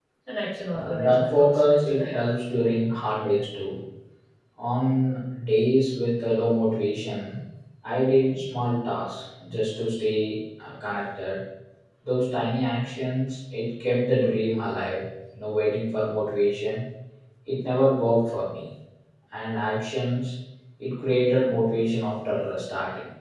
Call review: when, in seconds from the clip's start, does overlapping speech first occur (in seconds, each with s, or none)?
0.7 s